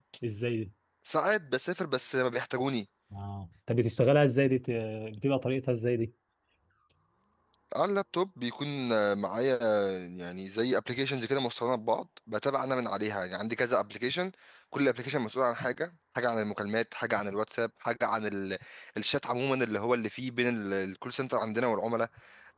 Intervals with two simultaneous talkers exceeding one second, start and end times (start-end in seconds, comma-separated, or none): none